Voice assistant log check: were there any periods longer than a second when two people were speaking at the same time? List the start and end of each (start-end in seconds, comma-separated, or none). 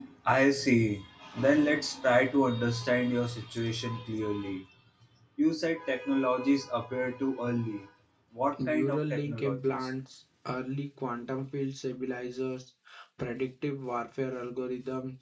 8.6-9.9